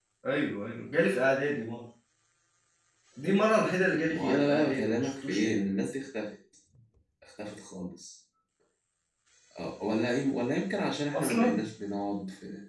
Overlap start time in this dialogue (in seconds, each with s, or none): 4.1 s